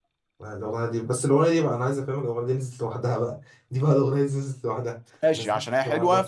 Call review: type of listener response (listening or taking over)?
taking over